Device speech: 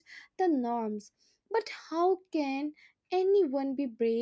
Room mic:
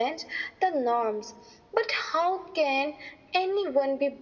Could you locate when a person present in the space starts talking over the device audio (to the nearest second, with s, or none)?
none